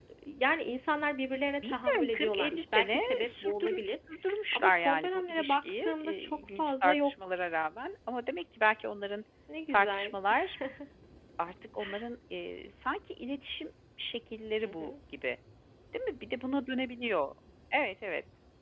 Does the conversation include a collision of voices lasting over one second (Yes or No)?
Yes